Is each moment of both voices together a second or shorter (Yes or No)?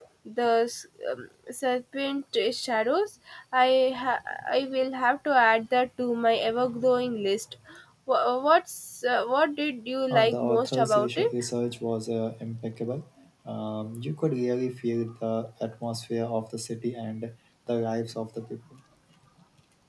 No